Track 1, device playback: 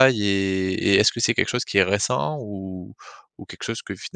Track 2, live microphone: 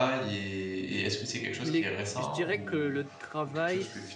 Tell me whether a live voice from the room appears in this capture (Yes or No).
Yes